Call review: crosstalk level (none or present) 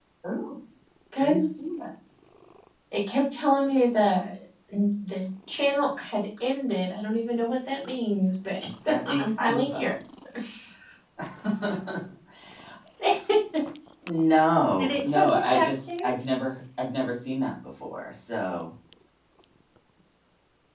present